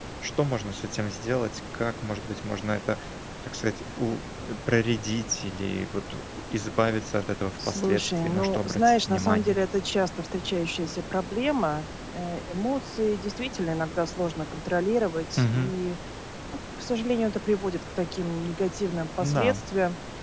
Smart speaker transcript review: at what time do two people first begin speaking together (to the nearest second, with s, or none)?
8 s